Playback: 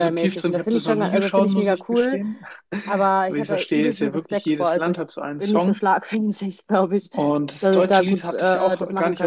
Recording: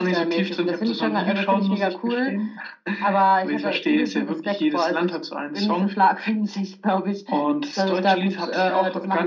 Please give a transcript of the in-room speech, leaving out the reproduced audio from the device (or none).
none